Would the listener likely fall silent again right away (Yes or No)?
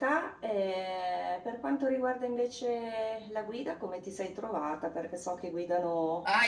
No